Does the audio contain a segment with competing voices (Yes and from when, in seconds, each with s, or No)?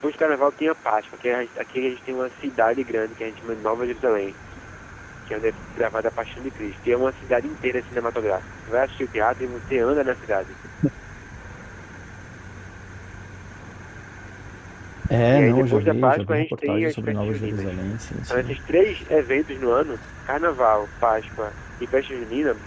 Yes, from 15.3 s